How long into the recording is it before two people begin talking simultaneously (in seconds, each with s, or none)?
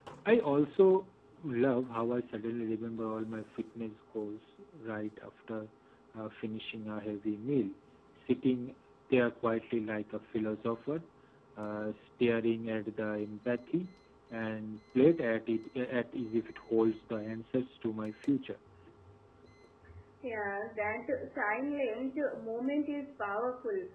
none